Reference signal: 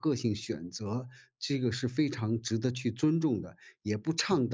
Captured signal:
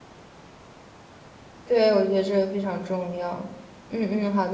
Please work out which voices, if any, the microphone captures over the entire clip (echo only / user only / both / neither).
user only